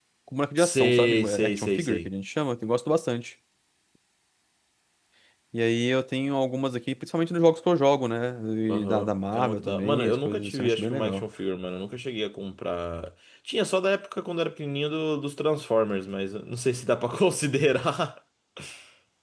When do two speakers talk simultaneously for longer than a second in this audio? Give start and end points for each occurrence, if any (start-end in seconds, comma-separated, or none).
0.6-2.1, 8.8-11.2